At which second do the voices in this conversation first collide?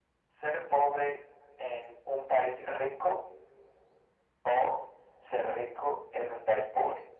none

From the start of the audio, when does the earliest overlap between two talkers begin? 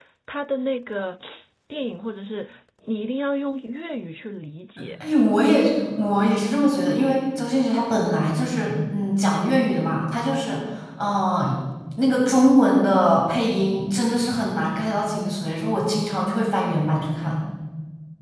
none

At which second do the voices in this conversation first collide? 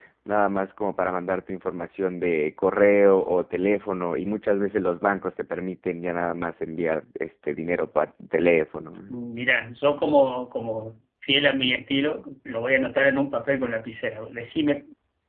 none

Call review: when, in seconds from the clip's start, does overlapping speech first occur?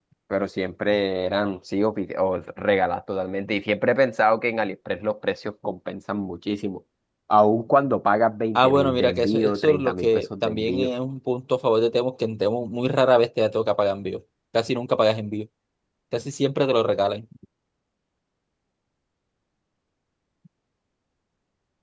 8.6 s

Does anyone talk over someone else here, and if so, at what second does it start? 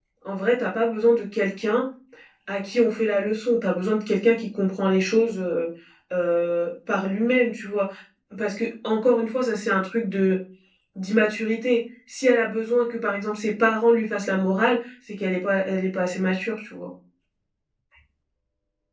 none

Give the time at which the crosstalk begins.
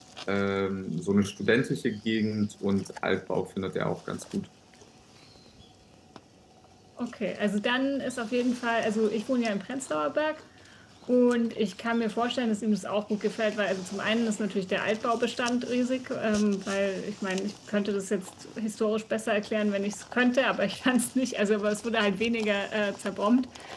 none

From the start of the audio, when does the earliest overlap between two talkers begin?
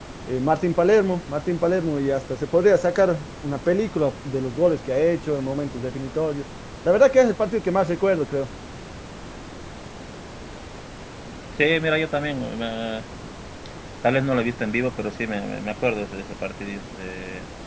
none

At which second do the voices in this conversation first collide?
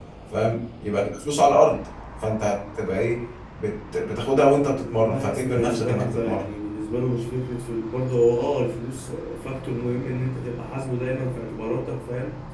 5.1 s

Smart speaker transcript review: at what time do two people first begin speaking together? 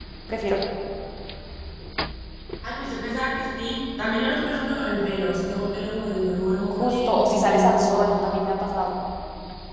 6.7 s

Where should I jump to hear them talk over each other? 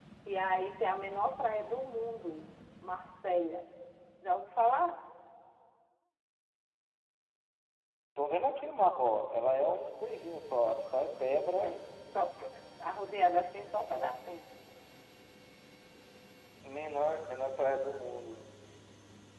none

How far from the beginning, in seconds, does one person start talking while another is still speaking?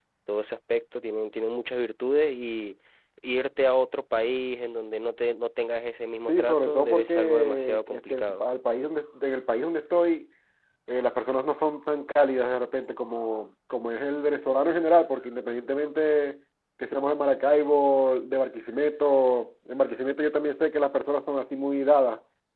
6.3 s

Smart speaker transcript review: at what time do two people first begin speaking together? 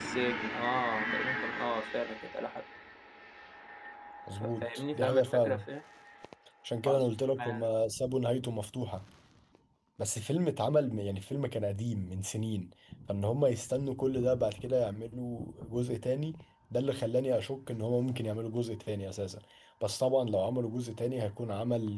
4.3 s

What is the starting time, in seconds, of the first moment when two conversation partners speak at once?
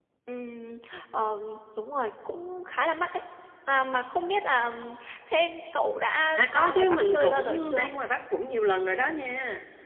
6.4 s

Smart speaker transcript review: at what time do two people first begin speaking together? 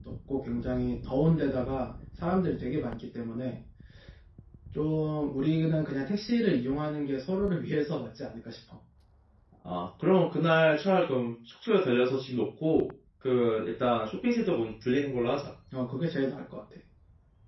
none

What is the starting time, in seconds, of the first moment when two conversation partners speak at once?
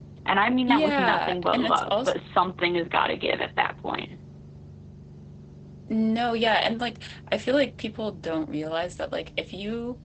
0.7 s

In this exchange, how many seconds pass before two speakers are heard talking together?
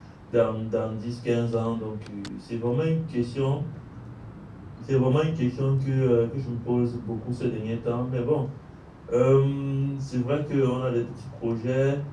none

